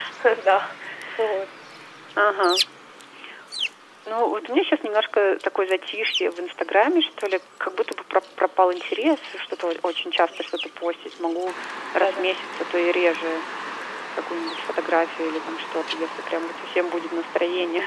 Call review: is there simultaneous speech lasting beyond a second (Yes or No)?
No